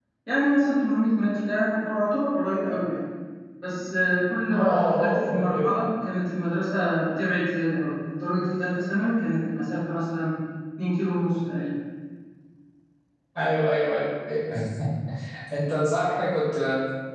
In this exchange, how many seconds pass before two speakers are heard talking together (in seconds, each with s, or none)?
4.5 s